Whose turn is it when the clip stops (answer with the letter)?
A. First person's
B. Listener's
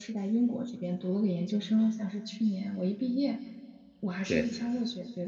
A